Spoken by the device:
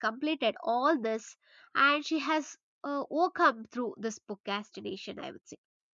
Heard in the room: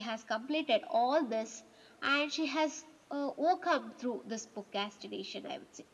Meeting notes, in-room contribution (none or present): none